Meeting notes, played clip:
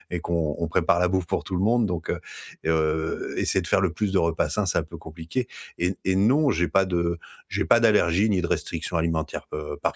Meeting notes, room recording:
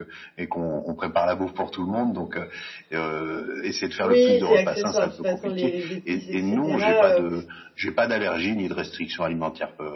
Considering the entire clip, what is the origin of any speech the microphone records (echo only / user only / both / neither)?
both